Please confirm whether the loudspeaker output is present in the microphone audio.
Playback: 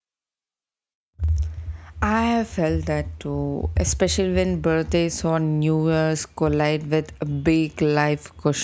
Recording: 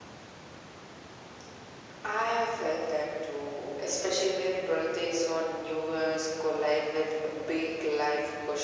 Yes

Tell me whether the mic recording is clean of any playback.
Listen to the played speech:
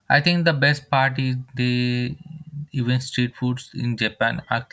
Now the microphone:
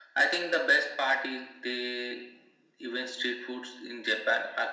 No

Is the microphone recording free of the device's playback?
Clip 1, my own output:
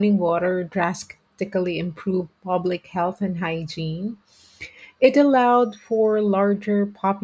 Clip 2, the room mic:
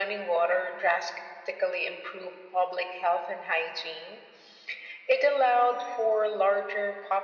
No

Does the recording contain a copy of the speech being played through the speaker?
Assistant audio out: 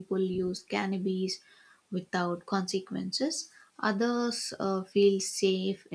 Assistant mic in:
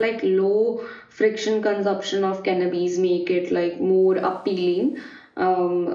No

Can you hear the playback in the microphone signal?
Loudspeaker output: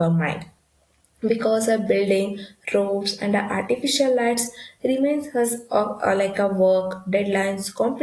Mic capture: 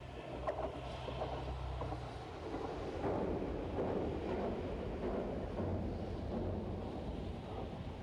No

